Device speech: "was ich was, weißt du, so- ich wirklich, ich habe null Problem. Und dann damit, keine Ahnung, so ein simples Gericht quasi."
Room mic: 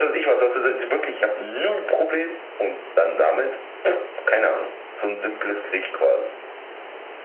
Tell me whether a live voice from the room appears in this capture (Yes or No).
No